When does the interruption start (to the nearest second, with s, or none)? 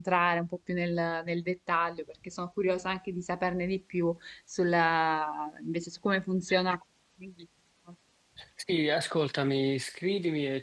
none